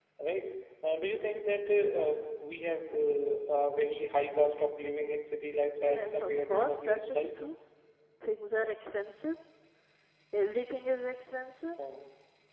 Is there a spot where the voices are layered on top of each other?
Yes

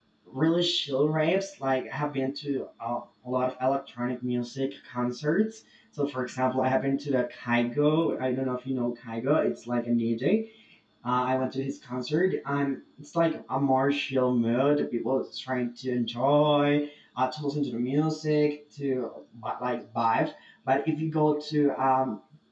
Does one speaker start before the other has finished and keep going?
No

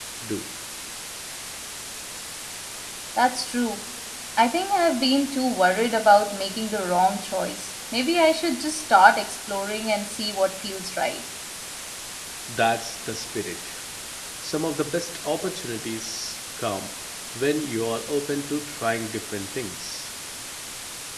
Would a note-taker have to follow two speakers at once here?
No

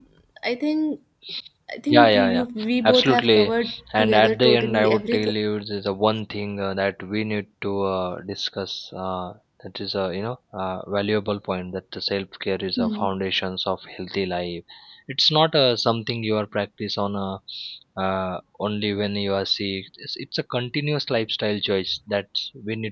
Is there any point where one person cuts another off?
Yes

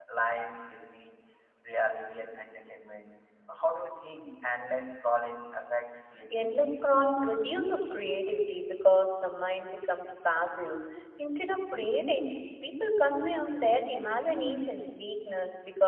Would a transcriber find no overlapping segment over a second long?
Yes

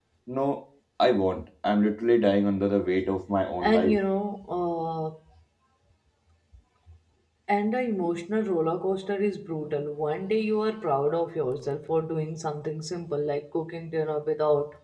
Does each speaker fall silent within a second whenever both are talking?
Yes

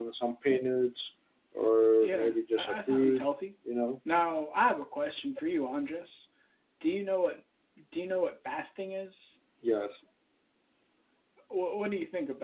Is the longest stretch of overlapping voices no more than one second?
No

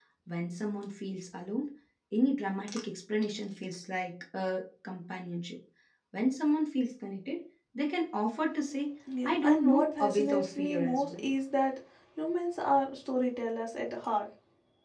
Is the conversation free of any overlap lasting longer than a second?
No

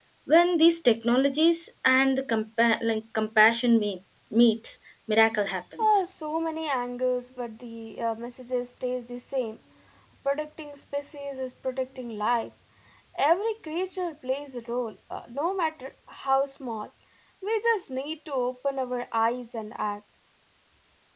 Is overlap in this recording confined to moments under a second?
Yes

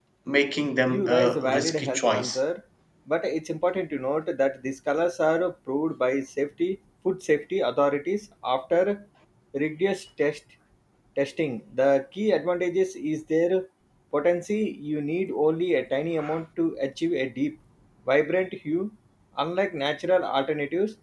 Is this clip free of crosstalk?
No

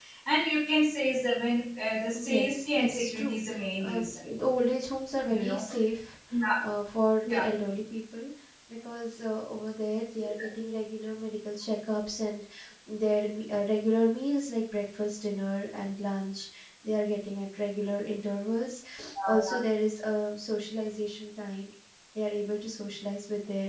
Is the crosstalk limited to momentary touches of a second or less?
No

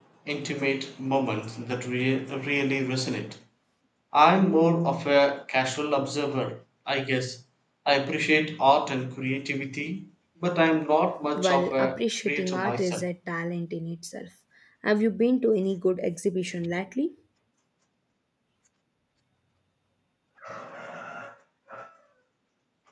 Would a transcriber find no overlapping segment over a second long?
No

